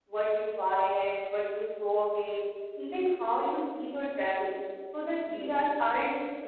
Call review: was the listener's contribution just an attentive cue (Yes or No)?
Yes